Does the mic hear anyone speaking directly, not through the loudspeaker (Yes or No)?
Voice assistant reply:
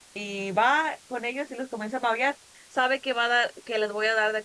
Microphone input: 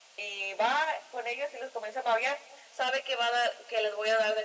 No